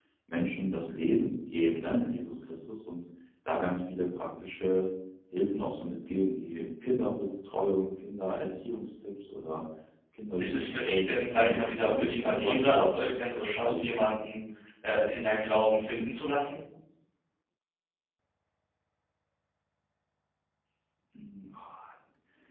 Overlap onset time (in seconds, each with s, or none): 10.4 s